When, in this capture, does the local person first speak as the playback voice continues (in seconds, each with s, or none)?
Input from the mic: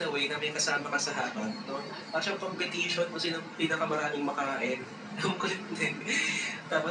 none